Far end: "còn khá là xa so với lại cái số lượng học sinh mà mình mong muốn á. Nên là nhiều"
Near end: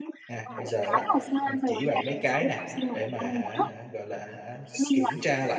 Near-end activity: present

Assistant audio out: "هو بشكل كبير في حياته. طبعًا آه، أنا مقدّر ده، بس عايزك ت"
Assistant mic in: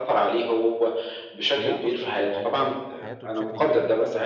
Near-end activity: present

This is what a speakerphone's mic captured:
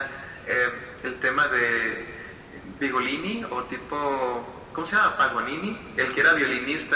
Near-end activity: none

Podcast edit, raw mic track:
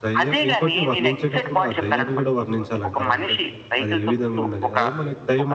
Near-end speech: present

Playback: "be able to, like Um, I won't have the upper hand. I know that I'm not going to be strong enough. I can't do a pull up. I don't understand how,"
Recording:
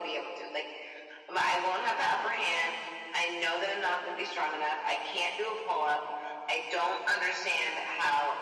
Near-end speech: none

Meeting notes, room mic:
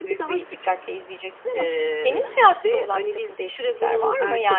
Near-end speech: present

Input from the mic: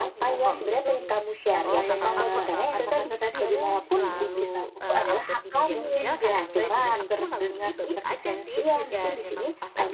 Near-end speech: present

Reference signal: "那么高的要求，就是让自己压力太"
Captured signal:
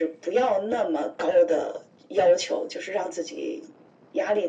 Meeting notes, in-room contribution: none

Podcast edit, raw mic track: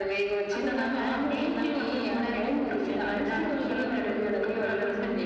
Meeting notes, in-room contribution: none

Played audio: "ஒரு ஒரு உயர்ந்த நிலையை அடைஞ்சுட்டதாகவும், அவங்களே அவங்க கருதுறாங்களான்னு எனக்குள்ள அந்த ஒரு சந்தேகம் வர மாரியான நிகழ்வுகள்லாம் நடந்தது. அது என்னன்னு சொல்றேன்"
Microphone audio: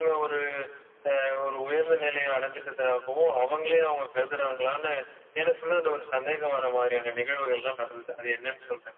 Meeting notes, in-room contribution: none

